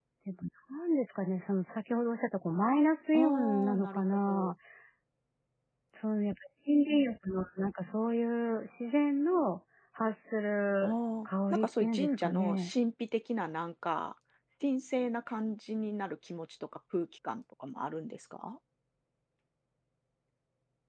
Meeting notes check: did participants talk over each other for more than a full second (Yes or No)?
Yes